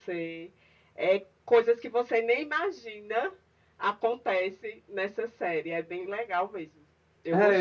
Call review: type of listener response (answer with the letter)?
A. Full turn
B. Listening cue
A